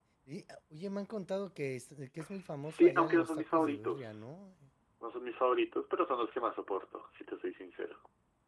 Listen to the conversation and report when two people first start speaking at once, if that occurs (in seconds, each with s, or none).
2.6 s